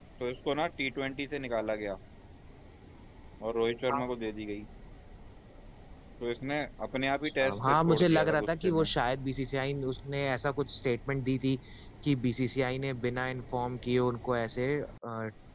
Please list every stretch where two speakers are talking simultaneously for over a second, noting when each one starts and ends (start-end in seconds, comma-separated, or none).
7.2-8.9